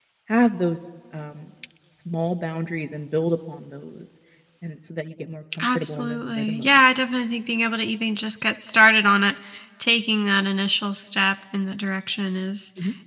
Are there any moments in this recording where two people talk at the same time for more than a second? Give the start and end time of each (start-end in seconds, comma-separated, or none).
5.6-6.9